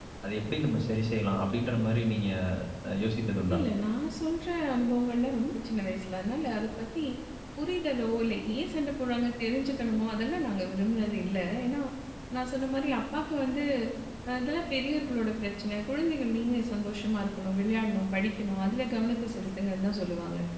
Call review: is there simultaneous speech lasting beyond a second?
No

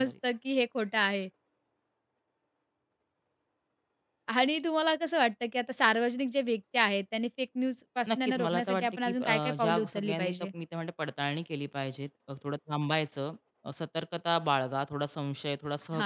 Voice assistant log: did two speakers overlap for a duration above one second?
Yes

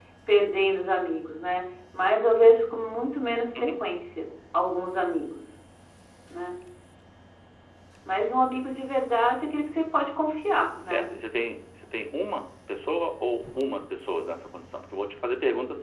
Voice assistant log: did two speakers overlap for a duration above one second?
No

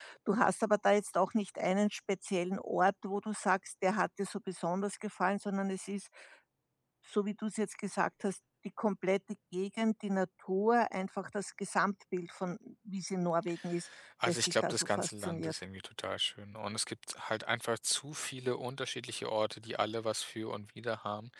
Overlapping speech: Yes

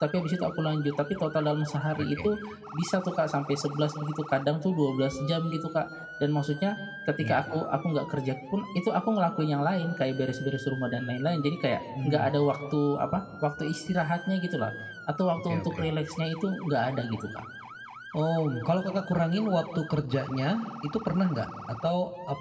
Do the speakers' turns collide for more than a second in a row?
No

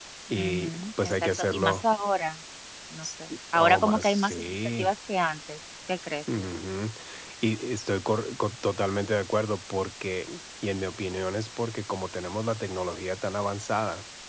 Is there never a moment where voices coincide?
No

